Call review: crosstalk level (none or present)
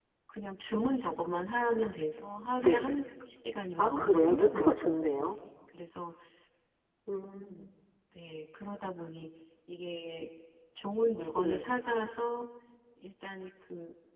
present